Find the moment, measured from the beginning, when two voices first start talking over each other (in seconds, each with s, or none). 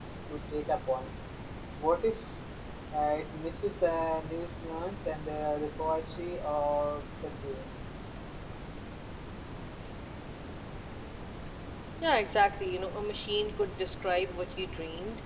none